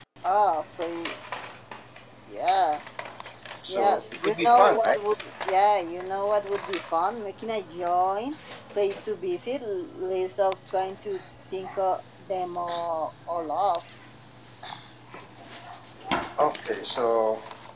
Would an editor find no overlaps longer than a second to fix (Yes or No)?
No